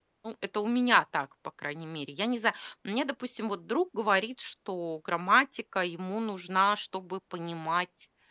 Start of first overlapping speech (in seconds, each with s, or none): none